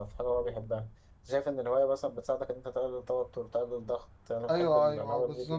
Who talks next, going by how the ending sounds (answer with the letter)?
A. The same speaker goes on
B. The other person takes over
B